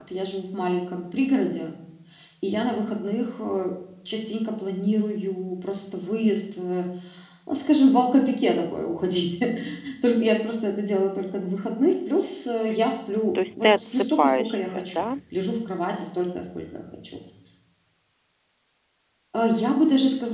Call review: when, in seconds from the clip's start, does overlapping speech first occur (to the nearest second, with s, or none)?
14 s